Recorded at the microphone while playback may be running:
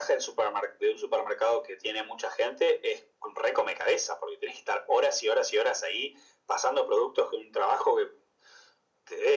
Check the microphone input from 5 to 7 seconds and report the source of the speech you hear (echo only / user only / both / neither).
echo only